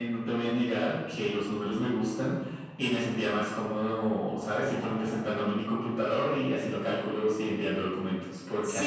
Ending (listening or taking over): taking over